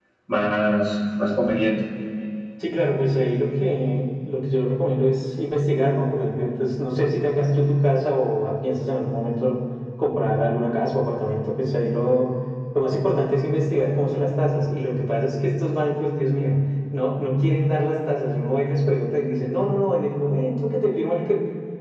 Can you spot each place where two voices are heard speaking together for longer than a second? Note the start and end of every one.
none

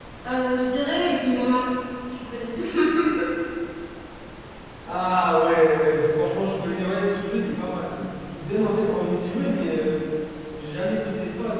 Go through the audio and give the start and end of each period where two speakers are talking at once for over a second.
none

